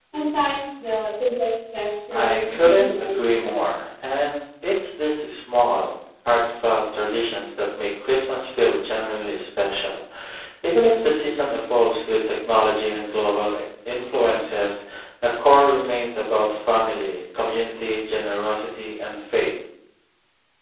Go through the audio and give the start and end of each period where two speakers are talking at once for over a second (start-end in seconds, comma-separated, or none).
2.1-3.7